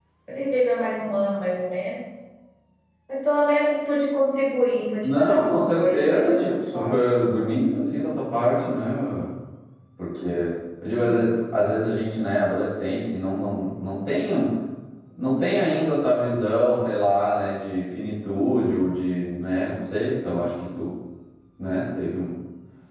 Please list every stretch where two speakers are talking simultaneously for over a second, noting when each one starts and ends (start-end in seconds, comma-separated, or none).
5.0-7.0